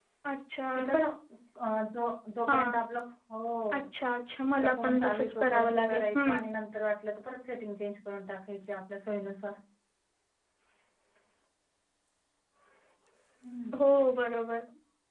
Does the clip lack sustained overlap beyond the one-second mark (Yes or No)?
No